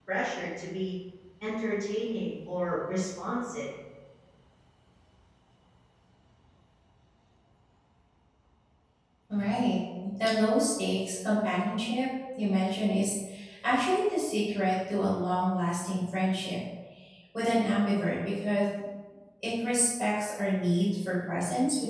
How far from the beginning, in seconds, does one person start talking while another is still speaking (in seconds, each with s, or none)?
none